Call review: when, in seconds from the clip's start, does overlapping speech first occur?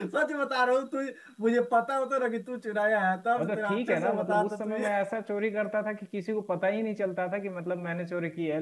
3 s

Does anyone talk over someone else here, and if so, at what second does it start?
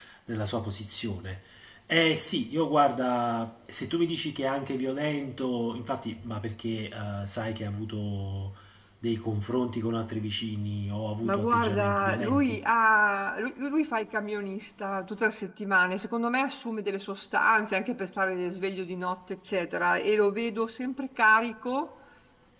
11 s

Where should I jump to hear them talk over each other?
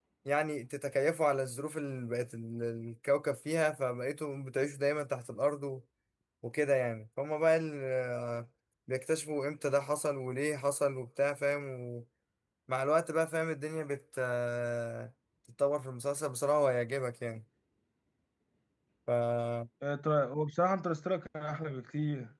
none

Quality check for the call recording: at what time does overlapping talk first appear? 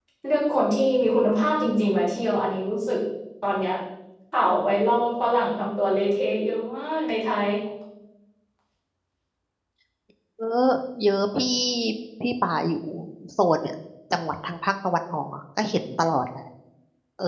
none

